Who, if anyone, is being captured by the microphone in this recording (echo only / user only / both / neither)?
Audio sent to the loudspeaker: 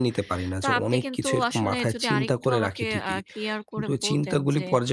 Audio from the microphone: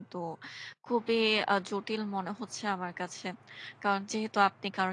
user only